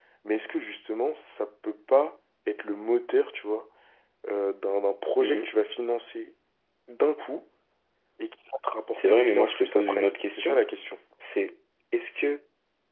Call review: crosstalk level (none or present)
present